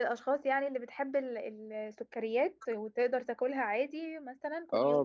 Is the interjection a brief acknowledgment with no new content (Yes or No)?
No